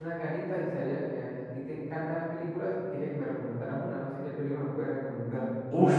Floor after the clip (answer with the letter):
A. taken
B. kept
A